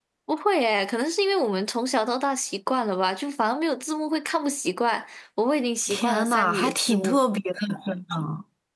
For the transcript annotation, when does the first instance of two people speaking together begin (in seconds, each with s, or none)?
5.9 s